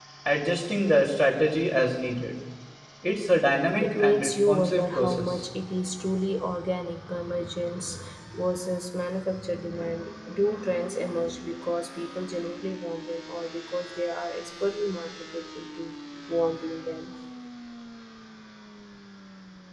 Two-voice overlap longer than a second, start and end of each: 3.8-5.5

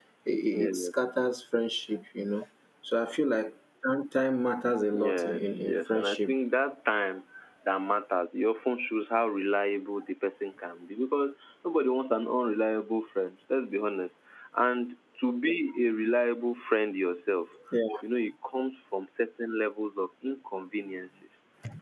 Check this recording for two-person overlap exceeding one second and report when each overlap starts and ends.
4.9-6.3

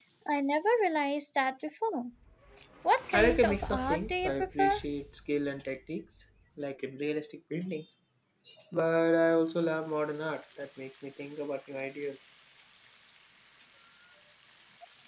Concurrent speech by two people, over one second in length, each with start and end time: 3.1-4.8

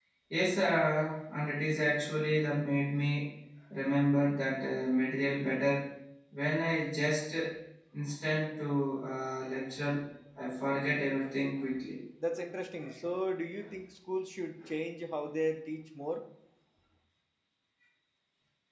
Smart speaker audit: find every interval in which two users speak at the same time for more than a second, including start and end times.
none

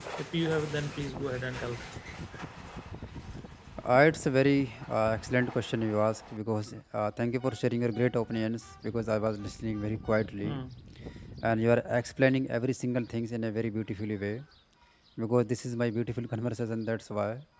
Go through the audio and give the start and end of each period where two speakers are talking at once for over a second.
none

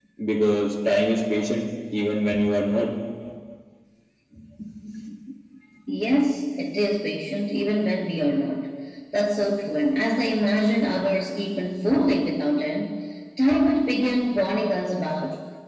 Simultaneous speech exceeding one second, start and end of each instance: none

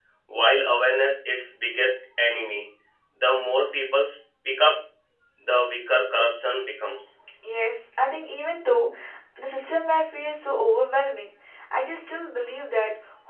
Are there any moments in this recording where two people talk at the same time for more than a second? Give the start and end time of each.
none

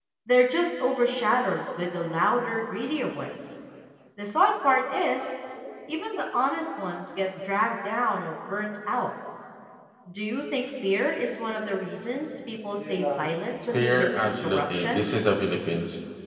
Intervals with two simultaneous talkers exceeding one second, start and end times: 13.7-15.0

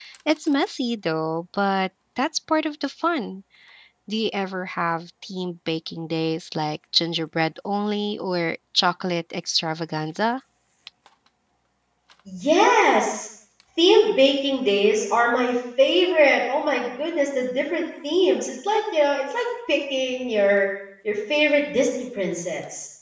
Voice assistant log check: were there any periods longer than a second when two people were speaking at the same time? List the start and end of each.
none

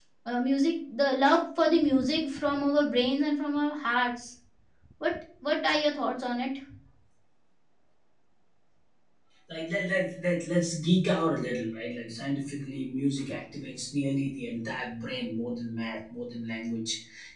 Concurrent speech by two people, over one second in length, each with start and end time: none

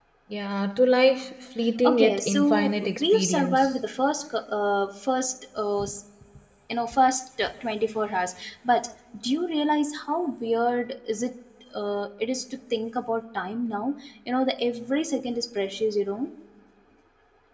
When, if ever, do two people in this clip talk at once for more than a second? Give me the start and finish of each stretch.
1.8-3.7

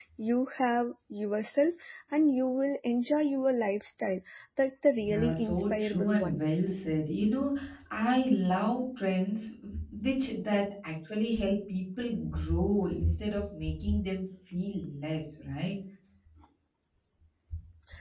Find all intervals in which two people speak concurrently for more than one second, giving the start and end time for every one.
5.0-6.4

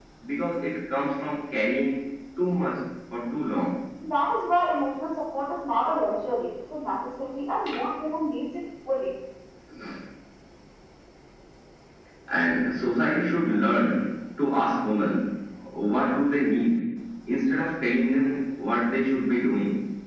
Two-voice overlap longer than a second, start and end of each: none

